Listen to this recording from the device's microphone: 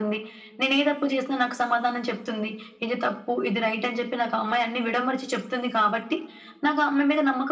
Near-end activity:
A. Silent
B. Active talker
A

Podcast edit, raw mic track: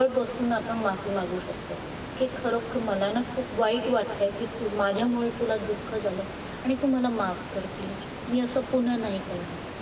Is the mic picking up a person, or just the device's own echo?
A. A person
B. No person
B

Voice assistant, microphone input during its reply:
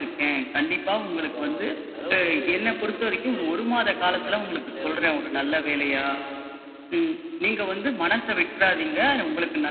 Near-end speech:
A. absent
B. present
B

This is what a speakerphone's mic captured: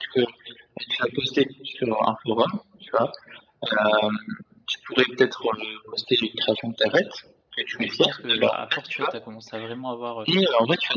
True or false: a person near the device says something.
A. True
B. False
A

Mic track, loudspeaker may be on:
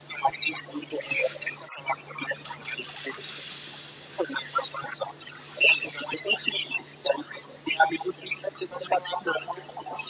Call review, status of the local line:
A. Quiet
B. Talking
A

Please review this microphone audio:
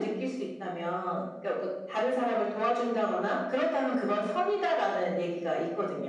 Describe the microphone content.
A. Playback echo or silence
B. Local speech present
A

